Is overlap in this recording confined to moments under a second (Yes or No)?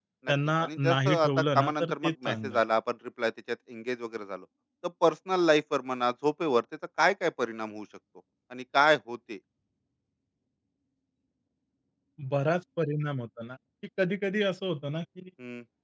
No